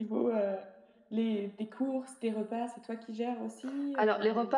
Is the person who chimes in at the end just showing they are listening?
No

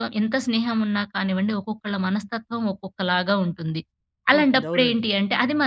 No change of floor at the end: Yes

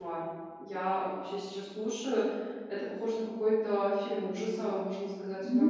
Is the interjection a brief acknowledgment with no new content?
No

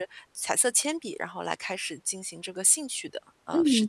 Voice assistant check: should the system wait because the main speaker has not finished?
No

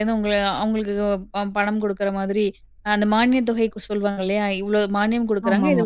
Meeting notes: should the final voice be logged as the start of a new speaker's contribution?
No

